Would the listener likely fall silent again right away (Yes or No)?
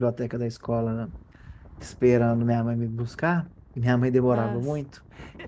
Yes